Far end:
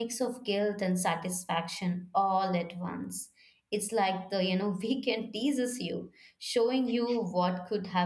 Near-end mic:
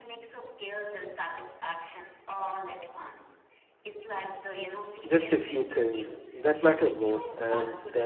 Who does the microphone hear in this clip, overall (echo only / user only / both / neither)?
both